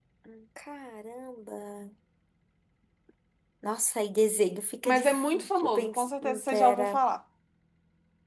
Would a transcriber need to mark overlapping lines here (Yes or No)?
Yes